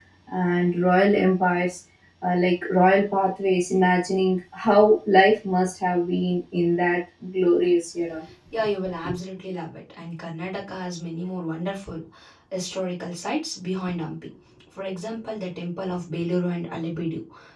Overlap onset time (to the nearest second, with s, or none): none